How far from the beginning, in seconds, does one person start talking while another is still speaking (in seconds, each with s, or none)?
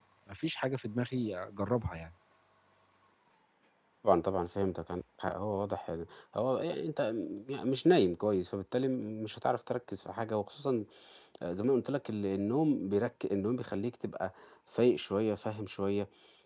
none